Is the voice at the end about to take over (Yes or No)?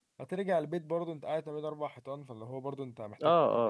Yes